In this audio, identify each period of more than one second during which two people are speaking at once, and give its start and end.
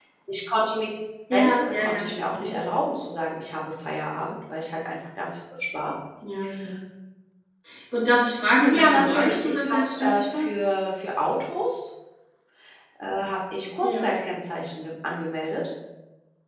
1.3-2.5, 8.7-10.4

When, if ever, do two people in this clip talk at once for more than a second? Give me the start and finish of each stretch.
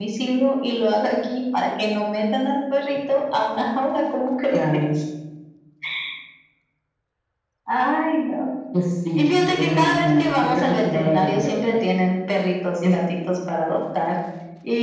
9.2-11.7

